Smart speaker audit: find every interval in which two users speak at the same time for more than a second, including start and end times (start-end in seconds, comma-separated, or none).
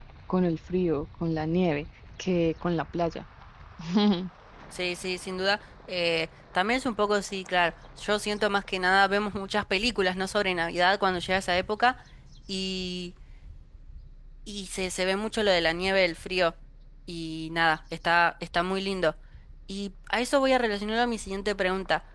none